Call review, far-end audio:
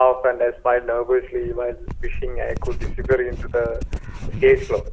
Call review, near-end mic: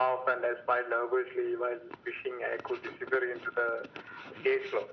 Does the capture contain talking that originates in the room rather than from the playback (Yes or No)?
No